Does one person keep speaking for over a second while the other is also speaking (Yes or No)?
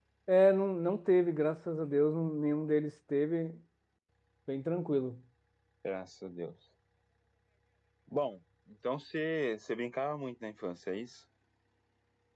No